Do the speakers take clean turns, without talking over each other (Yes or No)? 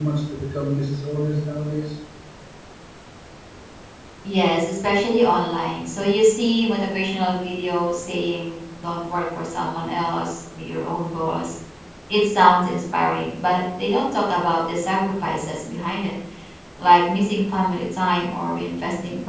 Yes